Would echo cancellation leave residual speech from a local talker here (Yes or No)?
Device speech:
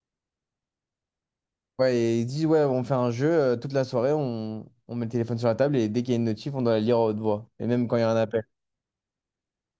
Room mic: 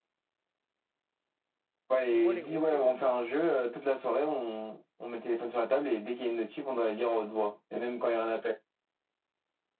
Yes